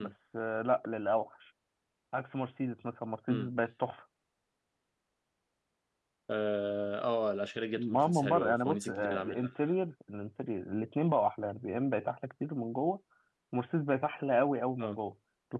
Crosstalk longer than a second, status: present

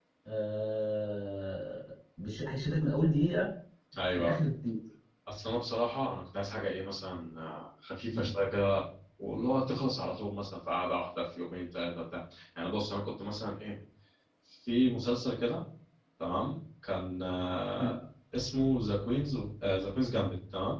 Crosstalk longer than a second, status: none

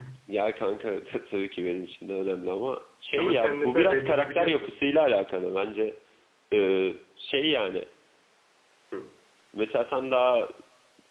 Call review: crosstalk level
present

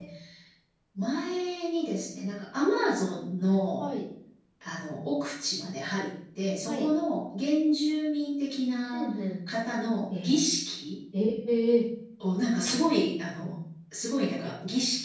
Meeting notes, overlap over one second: none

